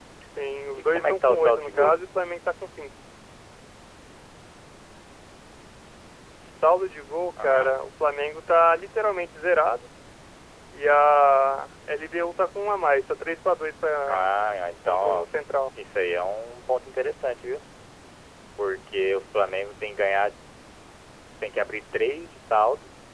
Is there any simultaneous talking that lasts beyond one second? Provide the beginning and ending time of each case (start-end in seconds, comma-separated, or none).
0.7-2.0